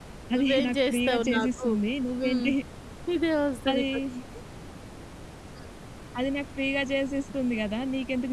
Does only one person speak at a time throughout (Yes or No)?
No